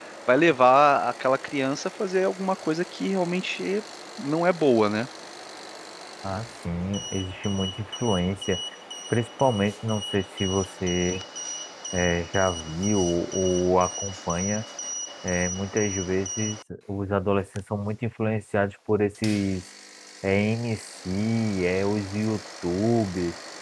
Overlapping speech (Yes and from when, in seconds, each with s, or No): No